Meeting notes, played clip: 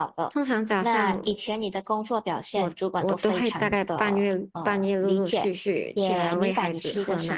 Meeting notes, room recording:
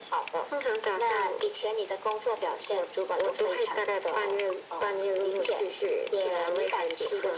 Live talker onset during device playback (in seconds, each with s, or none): none